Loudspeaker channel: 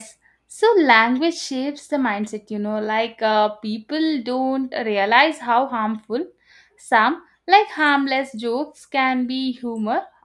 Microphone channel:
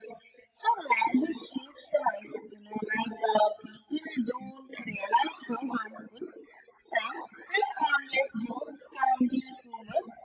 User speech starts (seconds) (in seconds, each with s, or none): none